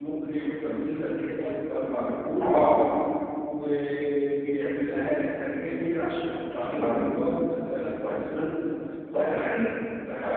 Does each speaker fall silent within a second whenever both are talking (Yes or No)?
Yes